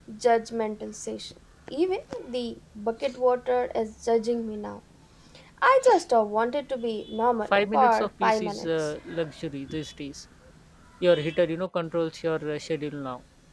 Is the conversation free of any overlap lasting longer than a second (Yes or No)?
No